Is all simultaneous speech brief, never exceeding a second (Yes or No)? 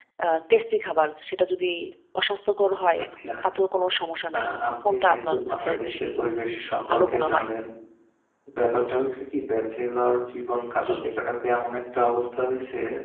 No